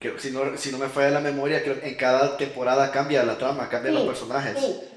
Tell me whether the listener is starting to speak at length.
Yes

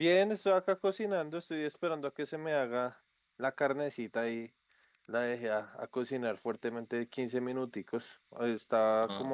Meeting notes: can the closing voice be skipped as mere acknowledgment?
Yes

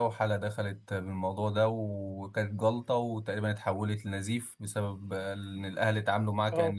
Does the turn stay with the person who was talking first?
Yes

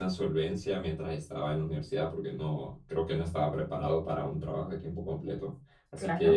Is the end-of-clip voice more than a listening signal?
No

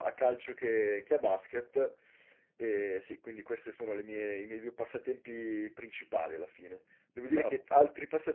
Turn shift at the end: No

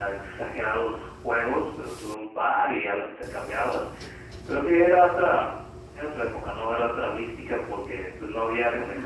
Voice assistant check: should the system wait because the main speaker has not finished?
Yes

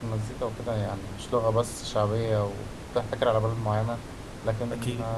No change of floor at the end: Yes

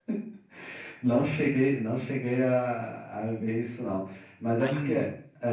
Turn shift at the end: No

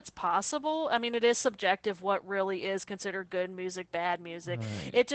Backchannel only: Yes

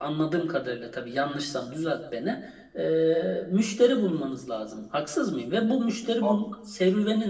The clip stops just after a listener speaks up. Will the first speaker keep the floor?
Yes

